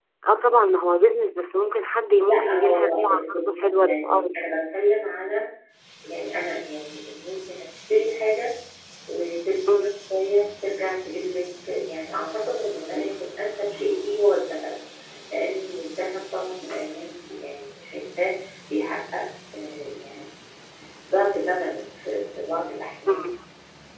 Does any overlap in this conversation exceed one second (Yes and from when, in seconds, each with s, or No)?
Yes, from 2.3 s